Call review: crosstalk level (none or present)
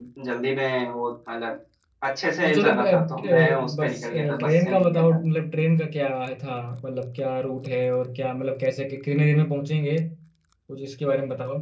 present